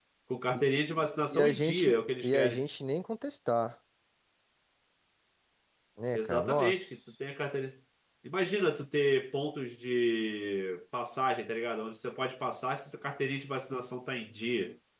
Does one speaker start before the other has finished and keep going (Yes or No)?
Yes